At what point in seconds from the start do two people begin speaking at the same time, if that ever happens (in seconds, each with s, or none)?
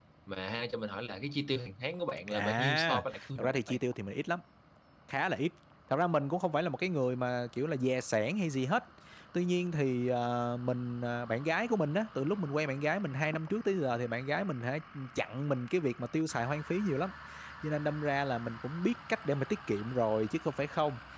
2.3 s